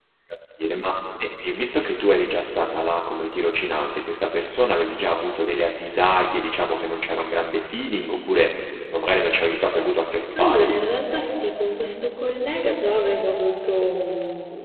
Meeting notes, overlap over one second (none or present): none